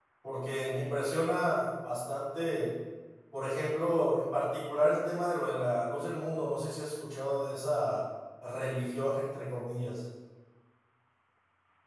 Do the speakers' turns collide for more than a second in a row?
No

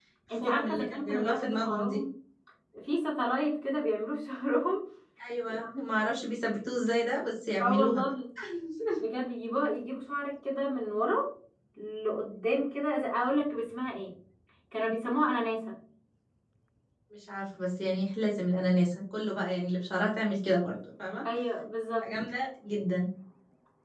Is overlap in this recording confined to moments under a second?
No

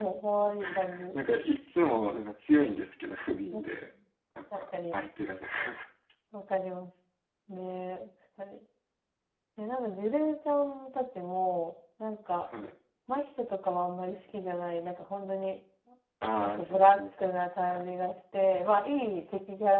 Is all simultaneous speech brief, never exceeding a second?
No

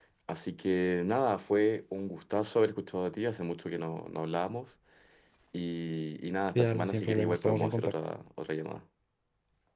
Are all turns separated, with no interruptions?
No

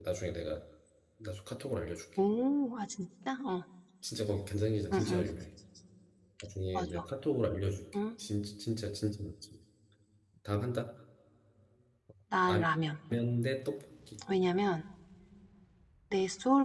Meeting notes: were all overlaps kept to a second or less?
Yes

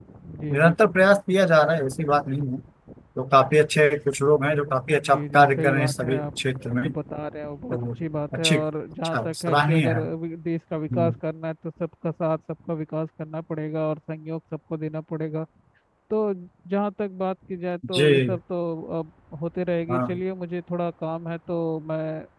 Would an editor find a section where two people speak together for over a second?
Yes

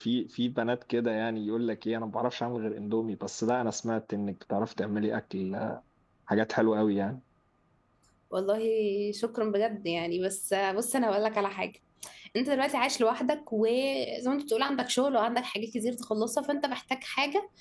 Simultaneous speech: No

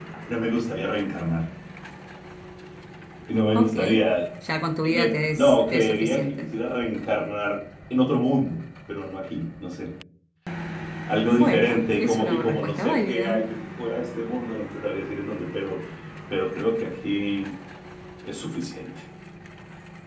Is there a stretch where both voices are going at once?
Yes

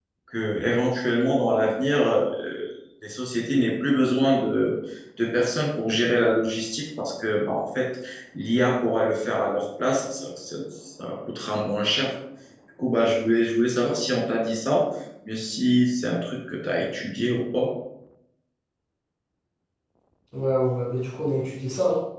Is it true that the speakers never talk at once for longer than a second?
Yes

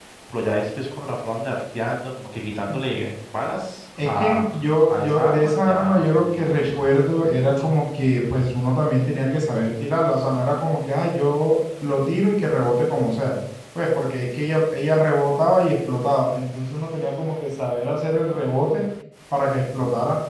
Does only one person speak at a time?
No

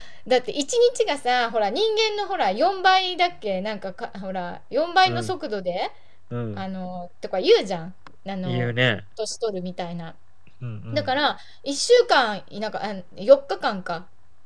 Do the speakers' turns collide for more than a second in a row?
No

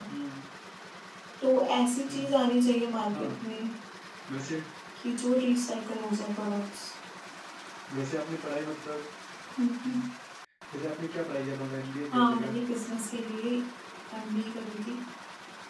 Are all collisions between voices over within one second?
Yes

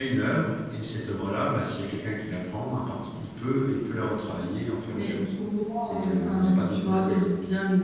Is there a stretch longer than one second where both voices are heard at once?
Yes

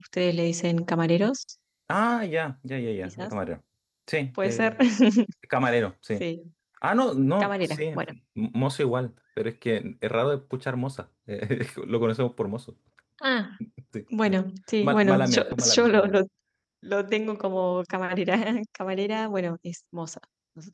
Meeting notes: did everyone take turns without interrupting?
No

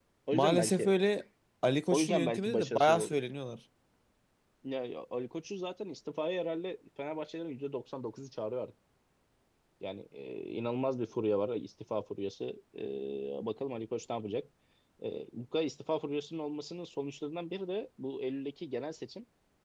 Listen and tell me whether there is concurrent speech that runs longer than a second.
Yes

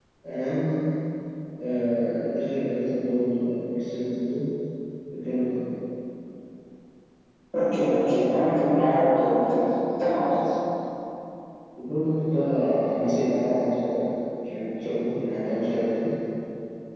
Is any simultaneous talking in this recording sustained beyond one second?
No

